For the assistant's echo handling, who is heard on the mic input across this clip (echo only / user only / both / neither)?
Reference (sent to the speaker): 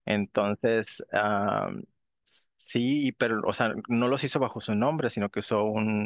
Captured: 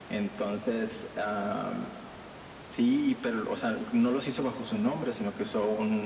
echo only